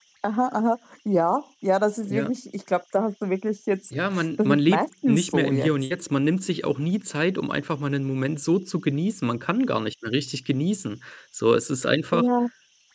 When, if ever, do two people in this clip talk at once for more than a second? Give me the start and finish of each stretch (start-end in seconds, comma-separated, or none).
4.1-5.7